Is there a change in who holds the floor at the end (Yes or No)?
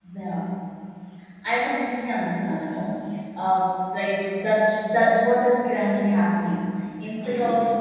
No